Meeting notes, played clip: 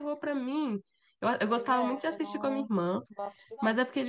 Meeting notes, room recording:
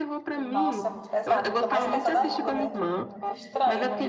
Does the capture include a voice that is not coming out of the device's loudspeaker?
Yes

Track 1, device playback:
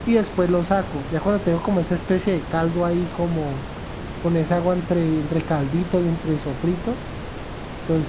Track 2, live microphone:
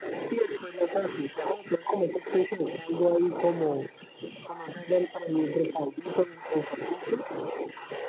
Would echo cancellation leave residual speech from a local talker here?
No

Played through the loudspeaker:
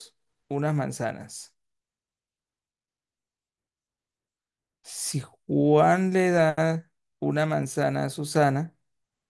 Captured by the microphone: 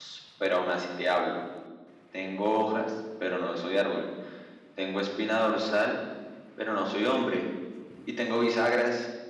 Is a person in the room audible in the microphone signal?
Yes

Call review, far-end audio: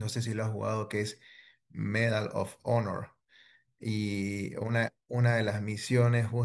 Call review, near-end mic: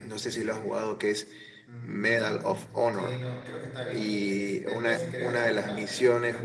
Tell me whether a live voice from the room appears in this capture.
Yes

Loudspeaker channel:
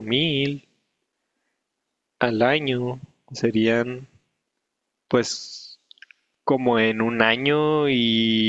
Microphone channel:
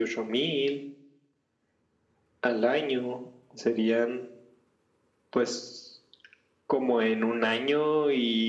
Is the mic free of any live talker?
Yes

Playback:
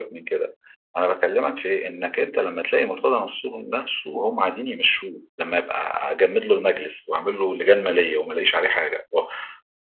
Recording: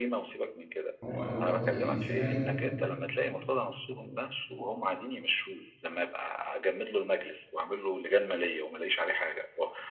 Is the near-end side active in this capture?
Yes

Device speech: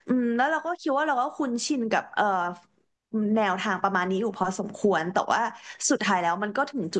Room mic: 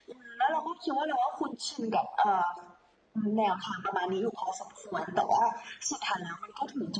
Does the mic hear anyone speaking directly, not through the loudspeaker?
No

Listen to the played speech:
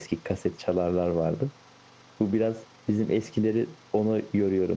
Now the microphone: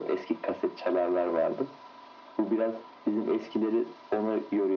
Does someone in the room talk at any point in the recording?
No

